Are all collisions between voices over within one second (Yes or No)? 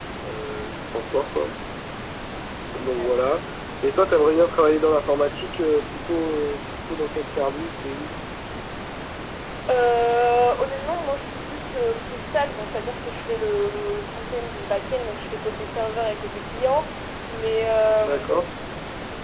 Yes